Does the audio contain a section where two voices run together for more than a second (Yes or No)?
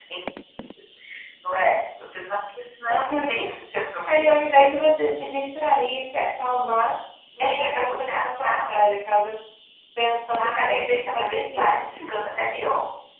Yes